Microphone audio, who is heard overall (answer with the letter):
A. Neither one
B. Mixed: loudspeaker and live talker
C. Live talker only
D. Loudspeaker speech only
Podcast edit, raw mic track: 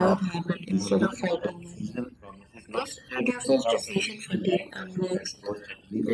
D